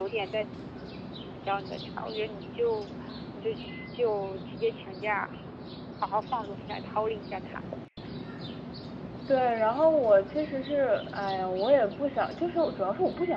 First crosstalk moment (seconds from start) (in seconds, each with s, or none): none